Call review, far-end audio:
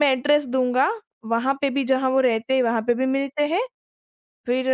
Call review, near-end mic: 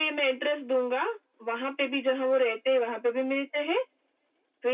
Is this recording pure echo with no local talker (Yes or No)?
Yes